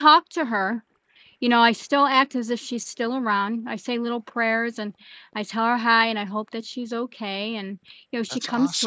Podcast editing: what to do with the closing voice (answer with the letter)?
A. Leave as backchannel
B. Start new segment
A